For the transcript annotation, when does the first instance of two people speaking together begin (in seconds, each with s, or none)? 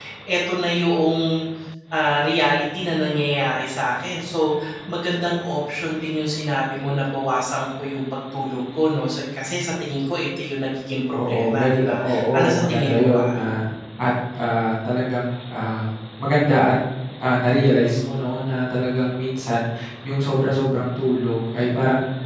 11.1 s